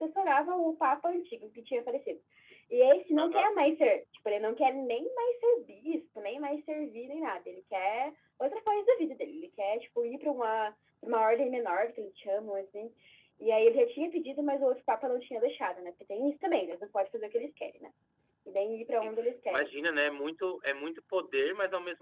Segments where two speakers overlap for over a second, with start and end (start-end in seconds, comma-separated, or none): none